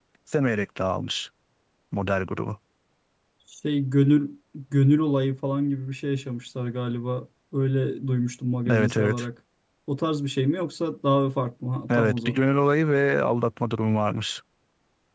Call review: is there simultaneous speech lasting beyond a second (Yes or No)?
No